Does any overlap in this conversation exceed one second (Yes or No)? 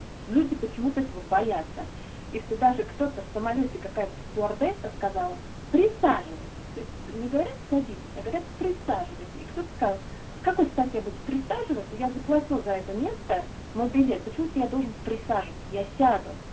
No